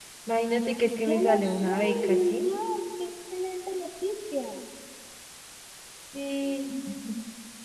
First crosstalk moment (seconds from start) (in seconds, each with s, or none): 1.1 s